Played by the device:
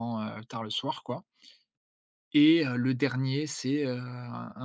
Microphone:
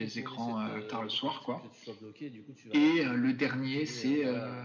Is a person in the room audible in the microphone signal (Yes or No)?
Yes